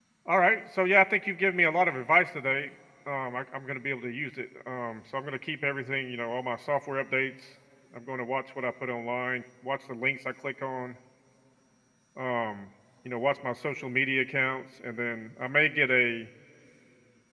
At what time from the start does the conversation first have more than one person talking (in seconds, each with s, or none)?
none